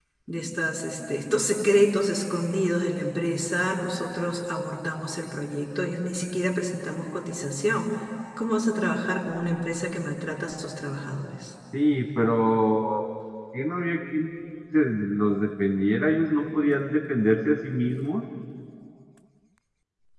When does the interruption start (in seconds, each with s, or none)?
none